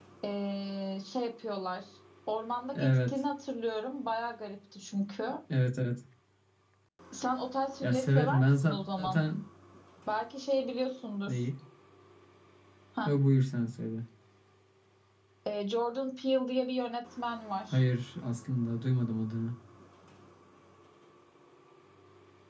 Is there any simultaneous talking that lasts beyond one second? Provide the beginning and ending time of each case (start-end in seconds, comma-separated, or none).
7.8-9.2